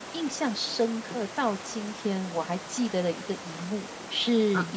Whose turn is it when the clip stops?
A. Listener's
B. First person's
B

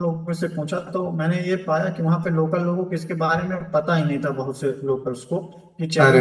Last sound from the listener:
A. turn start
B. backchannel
B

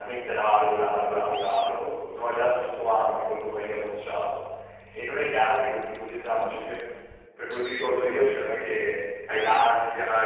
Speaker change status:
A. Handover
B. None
B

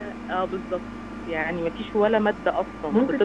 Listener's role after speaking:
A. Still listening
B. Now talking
B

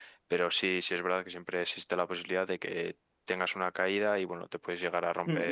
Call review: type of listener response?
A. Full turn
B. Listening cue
A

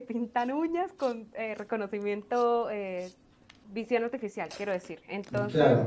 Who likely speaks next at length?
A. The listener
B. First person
B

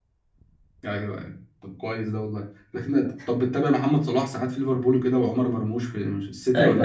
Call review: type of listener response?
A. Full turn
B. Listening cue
A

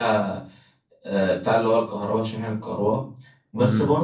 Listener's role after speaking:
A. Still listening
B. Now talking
A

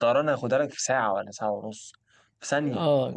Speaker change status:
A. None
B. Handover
B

